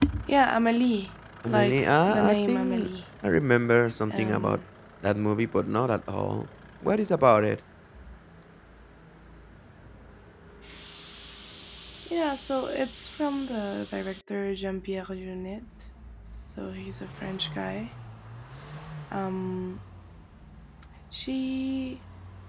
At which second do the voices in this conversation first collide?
1.5 s

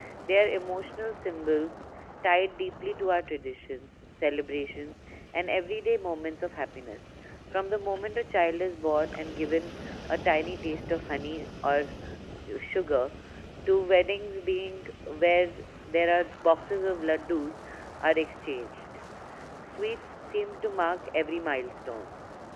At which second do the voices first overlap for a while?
none

